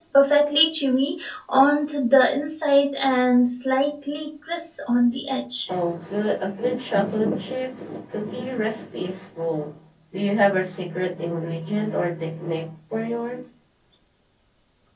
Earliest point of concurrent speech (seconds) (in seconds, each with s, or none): none